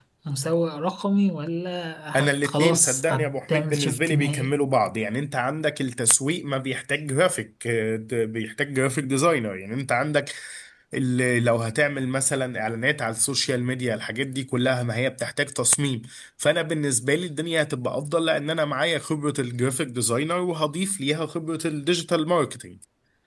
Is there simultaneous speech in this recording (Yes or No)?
Yes